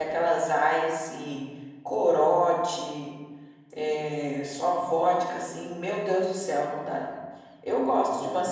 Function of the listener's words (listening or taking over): listening